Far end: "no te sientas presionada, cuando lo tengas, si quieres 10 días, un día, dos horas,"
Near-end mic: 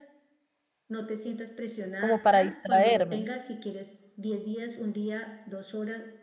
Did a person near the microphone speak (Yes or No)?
Yes